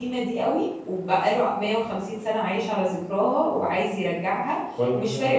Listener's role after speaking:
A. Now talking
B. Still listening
B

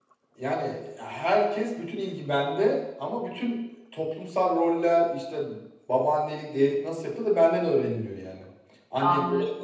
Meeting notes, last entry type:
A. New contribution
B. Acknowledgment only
A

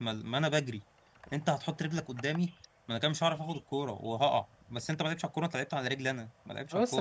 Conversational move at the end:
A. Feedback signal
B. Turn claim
B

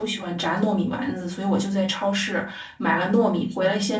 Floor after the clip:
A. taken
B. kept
B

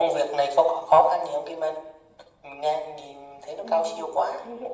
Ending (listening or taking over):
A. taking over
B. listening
A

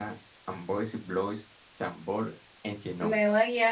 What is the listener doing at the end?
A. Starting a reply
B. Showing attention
A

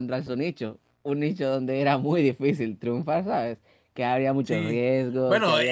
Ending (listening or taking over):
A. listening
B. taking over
B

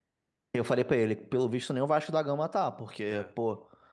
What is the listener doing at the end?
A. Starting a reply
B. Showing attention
B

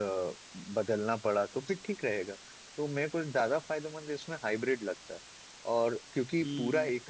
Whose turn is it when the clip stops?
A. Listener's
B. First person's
B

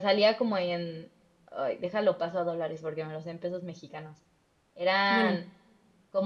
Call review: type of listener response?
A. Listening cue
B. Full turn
A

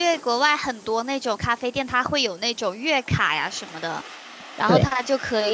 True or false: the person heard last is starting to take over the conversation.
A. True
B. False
B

